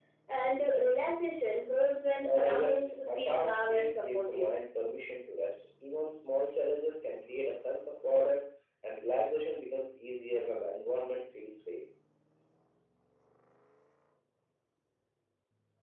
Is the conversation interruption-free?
No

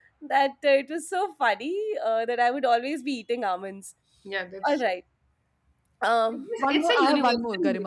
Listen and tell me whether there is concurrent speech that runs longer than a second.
Yes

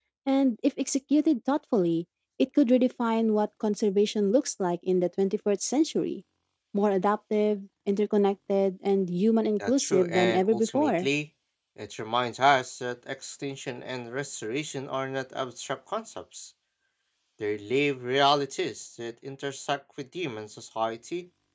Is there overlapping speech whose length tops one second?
Yes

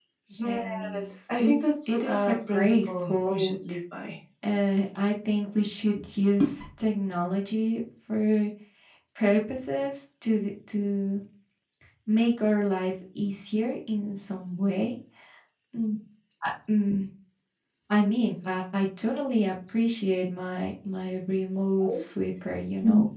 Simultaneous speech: Yes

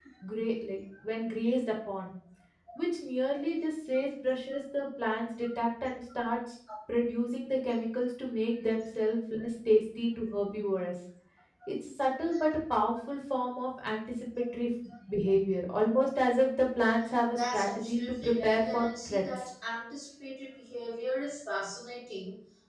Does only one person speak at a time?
No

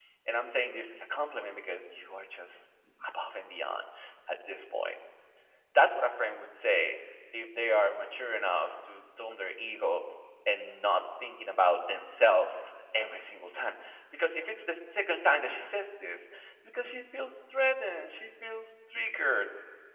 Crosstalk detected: No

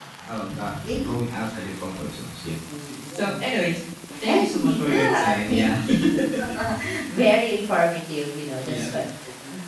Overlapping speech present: Yes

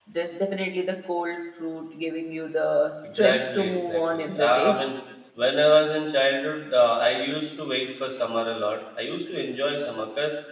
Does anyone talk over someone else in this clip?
Yes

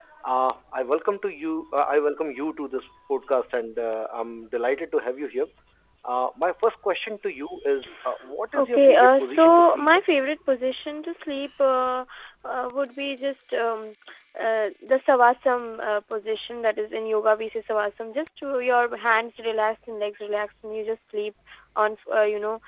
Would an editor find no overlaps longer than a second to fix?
No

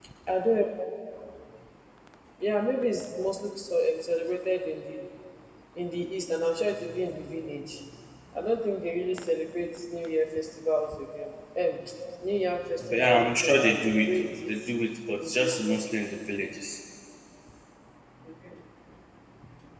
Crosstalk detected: Yes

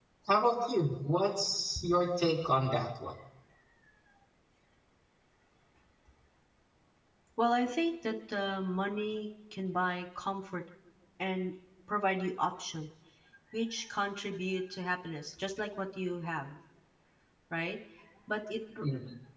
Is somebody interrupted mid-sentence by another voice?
No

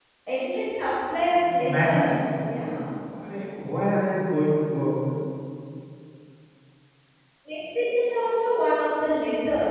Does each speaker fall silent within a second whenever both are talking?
No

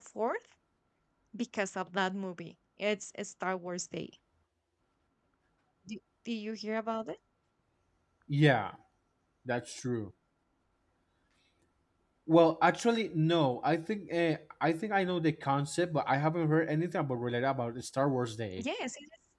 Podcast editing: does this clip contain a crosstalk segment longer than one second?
No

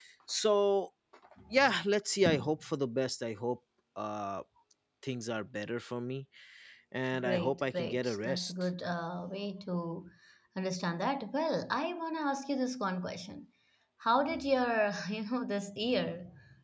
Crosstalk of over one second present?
Yes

